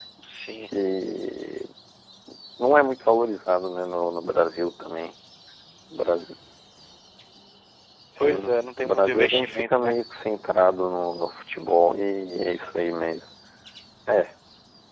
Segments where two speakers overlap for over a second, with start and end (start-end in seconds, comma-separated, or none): 8.2-9.9